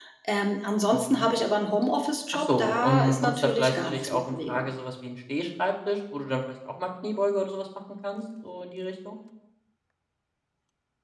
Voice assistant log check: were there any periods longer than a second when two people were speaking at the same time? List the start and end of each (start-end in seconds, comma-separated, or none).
2.3-4.7